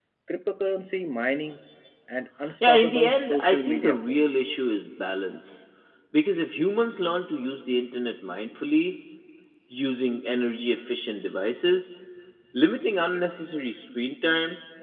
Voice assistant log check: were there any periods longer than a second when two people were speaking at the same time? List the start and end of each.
2.6-4.2

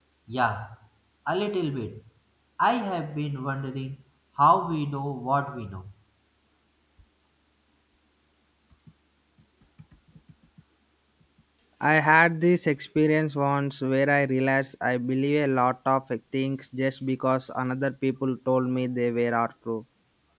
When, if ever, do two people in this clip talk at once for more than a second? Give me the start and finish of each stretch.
none

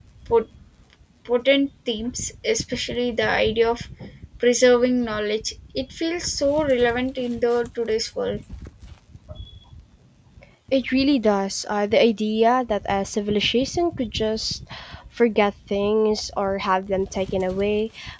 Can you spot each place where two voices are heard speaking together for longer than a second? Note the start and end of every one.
none

